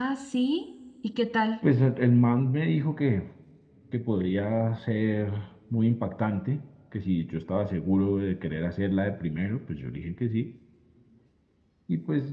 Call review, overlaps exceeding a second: none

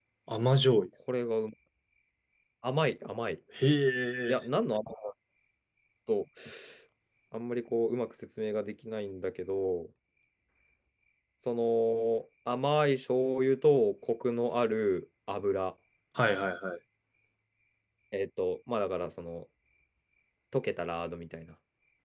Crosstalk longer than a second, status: none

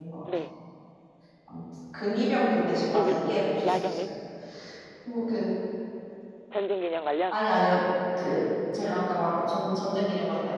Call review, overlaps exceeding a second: none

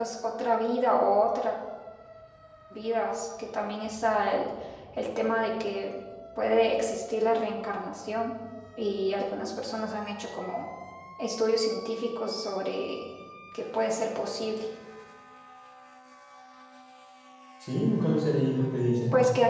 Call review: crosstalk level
none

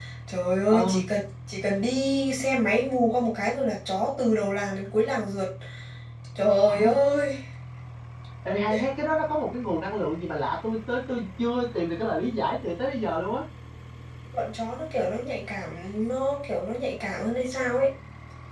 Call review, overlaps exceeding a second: none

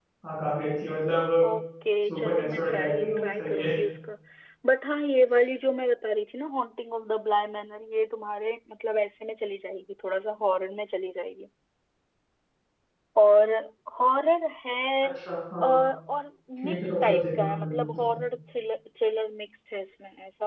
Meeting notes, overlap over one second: present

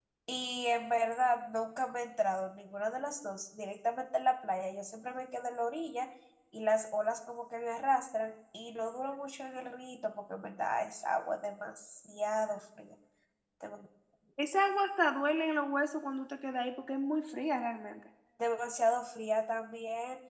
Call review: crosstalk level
none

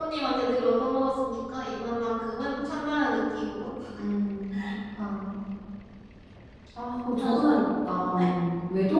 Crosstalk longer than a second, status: none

